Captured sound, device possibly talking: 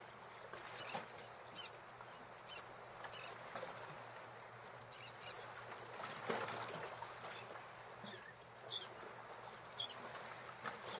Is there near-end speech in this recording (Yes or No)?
No